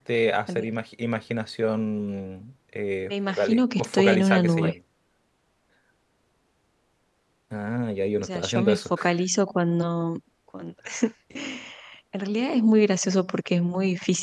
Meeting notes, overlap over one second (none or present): present